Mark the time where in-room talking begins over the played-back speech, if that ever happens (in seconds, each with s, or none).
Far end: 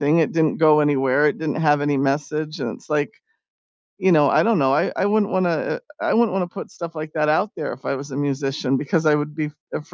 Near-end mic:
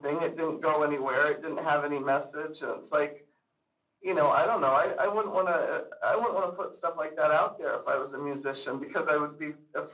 none